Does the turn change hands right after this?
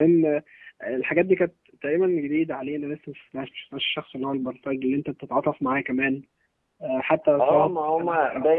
Yes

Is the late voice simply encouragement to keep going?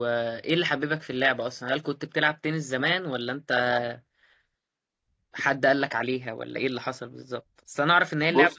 Yes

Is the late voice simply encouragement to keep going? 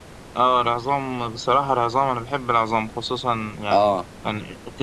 Yes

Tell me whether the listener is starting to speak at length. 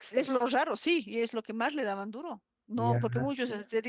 No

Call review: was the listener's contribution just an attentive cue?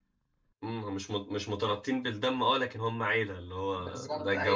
No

